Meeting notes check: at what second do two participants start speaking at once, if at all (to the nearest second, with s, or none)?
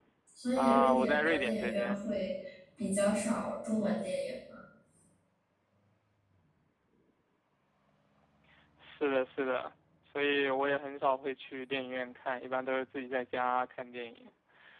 1 s